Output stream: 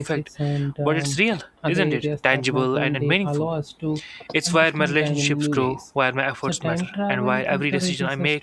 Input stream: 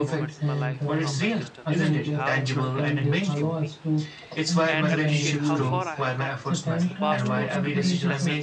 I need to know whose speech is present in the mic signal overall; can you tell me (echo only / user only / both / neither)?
both